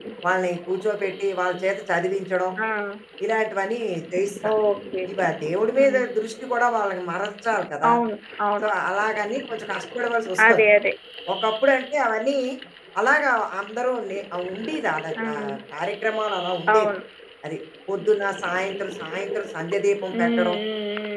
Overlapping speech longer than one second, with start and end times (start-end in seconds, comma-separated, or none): none